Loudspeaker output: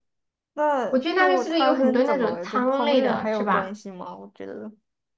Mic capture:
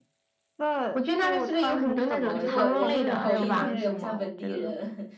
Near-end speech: present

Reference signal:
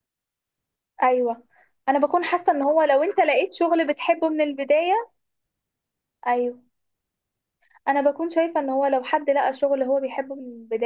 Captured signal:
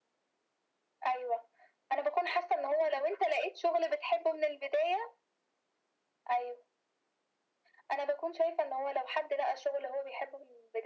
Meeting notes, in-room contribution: none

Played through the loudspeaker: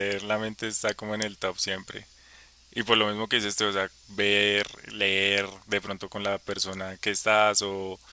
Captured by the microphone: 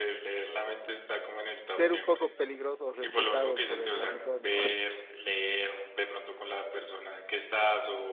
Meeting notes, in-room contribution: present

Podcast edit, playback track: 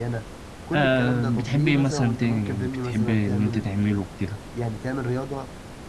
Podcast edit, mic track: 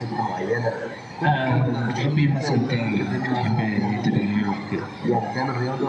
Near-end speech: none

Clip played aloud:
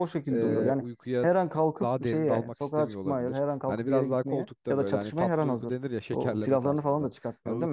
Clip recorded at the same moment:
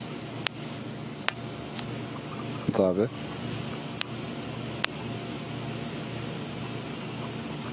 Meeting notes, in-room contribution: present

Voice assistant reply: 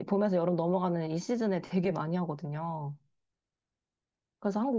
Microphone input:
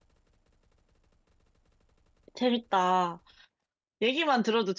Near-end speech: present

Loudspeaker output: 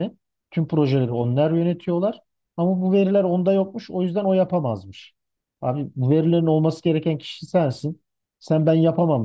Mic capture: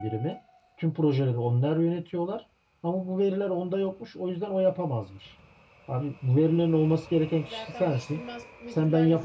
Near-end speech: present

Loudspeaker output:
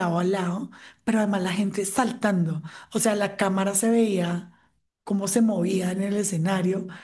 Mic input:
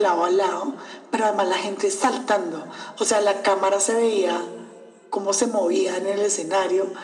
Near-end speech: none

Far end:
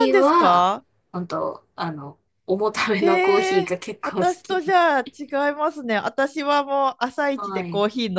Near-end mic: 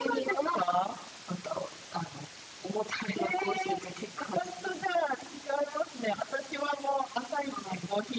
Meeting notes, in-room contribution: none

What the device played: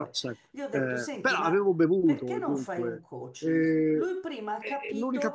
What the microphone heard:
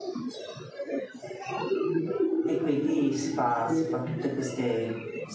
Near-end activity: present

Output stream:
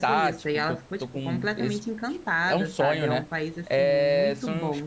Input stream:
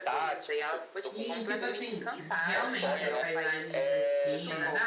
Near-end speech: present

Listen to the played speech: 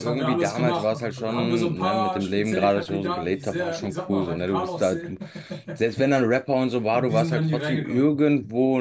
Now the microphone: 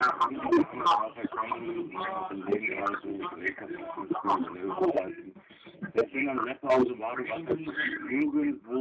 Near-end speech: none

